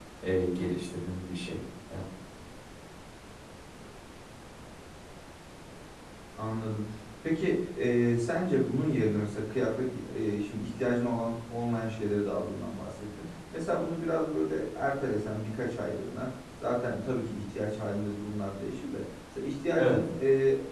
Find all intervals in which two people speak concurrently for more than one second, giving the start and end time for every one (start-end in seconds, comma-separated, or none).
none